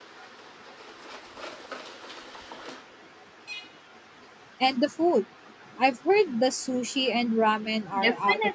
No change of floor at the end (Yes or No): No